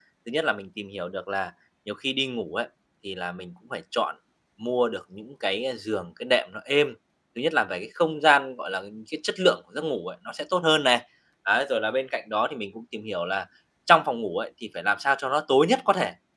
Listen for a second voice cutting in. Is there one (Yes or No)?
No